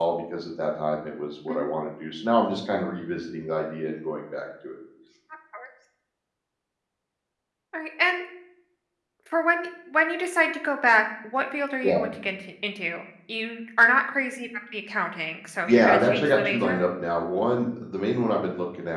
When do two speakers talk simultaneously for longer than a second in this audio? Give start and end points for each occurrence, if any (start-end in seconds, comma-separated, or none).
15.7-16.9